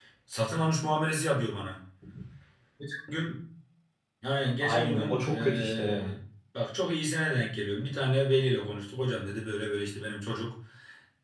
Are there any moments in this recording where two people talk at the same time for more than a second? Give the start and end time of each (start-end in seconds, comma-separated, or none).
4.6-6.1